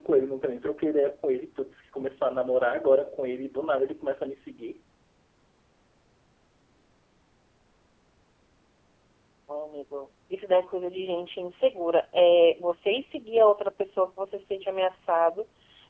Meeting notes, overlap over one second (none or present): none